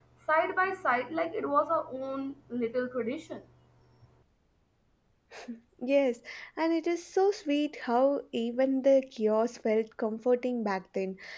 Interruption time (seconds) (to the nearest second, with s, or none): none